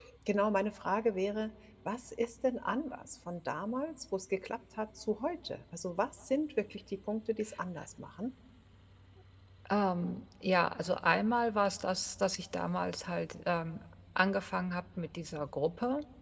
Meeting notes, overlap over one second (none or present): none